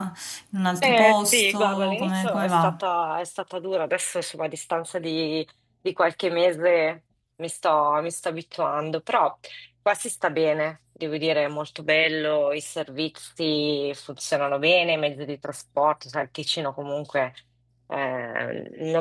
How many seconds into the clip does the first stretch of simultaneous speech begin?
0.8 s

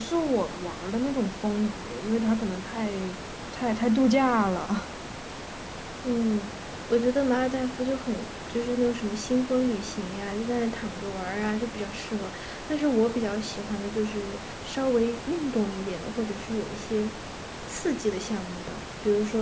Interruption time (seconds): none

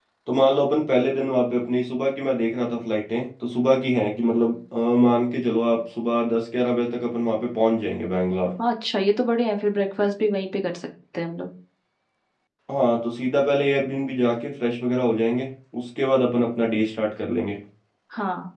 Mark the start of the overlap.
none

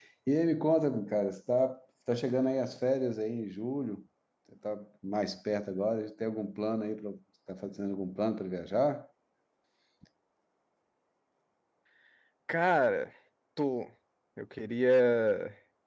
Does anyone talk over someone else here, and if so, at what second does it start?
none

